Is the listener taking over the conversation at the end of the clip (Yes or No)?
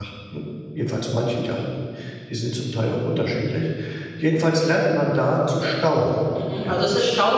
Yes